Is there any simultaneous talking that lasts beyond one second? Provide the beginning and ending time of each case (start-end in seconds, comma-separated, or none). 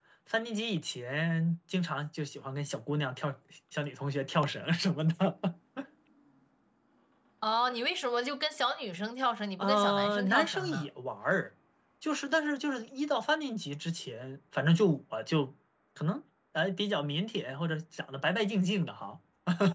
9.6-10.9